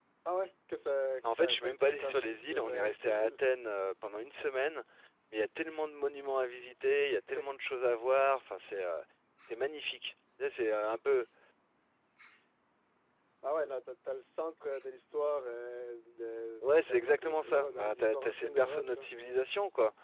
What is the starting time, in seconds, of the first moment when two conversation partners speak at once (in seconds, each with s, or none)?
1.4 s